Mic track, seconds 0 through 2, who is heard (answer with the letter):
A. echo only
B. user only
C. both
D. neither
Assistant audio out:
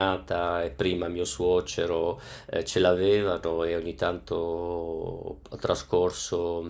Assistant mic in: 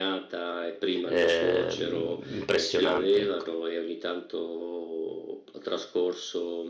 C